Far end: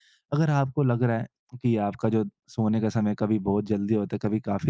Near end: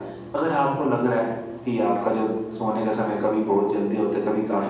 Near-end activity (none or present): none